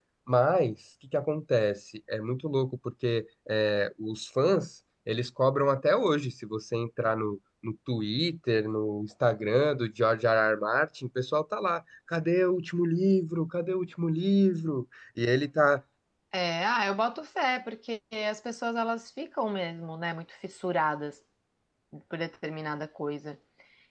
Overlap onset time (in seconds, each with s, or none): none